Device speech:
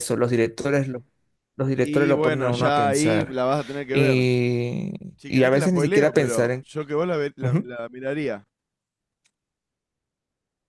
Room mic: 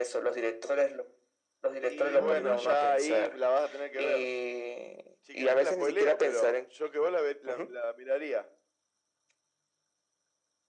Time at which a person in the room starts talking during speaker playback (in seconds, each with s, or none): 2.1 s